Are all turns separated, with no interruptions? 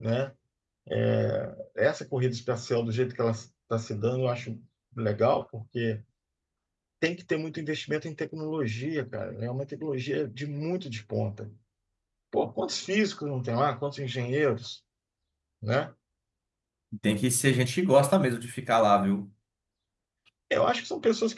Yes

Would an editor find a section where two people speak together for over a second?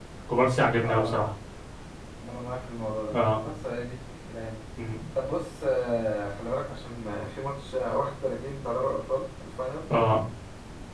No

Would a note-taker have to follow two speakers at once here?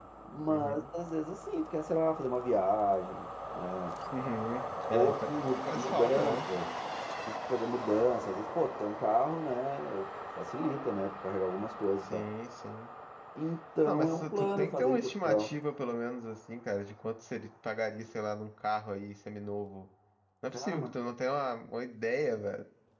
Yes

